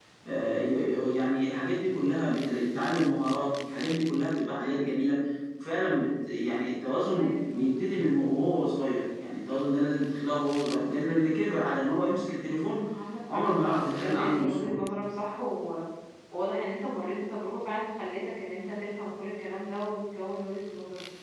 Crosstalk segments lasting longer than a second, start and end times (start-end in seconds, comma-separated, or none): 13.3-14.8